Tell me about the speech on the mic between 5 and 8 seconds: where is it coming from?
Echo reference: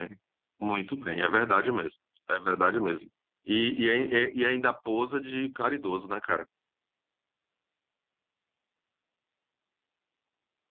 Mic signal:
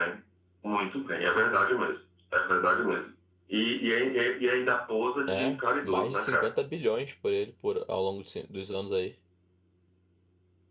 both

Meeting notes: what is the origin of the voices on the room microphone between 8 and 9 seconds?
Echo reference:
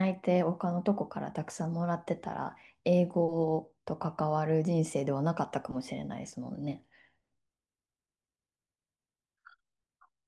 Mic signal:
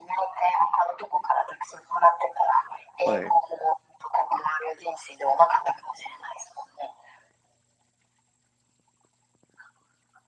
neither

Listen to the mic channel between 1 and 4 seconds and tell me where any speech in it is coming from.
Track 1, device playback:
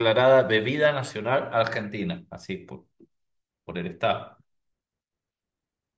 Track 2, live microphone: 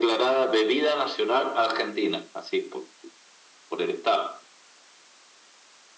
echo only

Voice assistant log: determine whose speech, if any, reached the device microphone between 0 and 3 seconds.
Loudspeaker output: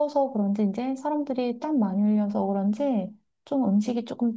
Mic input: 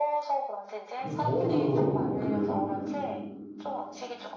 both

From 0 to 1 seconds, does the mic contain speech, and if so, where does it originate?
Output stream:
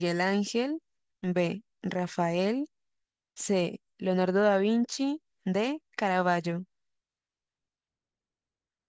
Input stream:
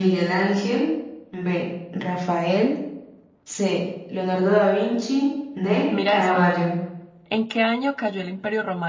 echo only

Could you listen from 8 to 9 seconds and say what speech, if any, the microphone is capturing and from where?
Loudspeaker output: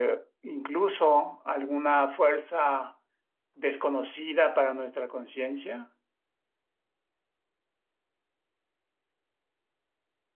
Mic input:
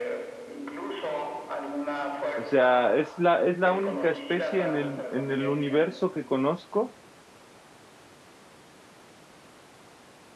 neither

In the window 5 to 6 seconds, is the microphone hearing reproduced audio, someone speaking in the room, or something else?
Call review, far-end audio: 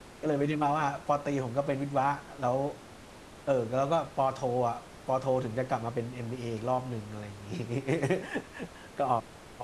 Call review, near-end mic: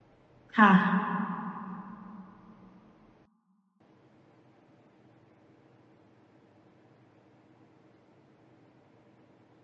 neither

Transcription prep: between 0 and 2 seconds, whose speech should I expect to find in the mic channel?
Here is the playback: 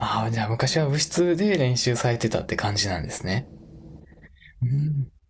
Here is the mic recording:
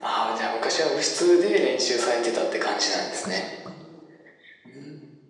echo only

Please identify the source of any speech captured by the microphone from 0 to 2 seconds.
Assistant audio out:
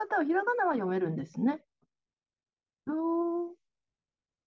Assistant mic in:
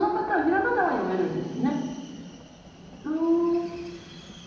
echo only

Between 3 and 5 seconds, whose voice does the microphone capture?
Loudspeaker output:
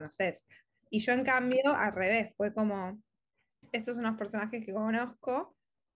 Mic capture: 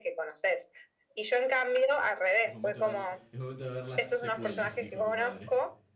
both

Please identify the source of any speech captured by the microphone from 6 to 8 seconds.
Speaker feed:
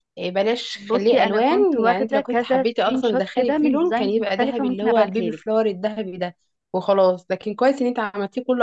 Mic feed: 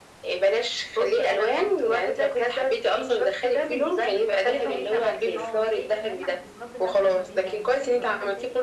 both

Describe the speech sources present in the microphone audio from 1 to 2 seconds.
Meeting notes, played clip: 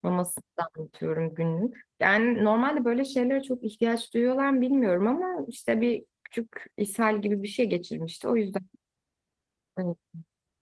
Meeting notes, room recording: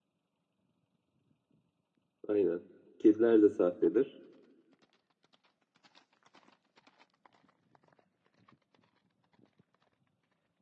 neither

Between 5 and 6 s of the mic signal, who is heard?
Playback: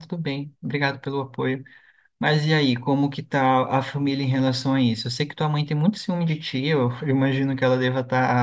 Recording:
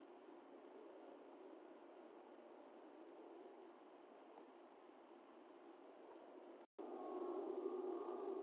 neither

